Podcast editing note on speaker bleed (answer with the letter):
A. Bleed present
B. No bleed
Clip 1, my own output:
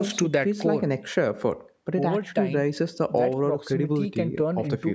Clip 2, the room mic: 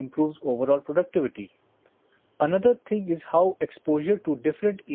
B